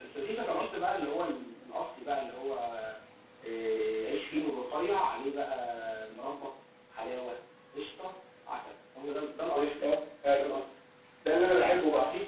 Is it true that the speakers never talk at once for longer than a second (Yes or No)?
Yes